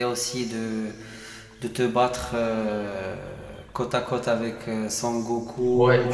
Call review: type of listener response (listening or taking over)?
taking over